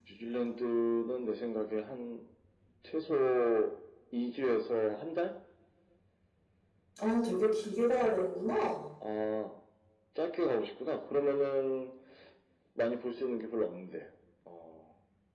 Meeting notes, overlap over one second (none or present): none